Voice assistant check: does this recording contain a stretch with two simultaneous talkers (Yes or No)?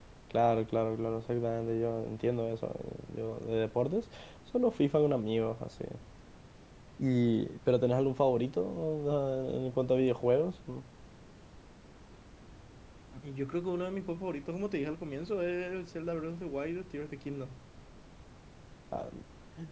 No